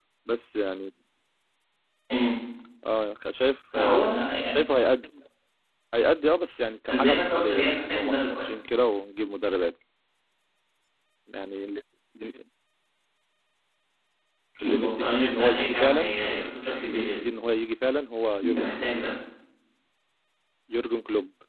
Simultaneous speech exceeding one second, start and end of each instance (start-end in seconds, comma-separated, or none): 7.0-8.4, 14.6-16.0